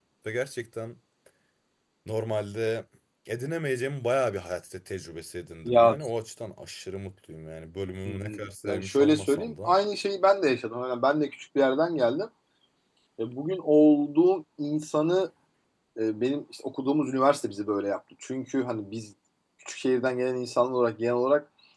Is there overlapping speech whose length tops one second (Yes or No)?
Yes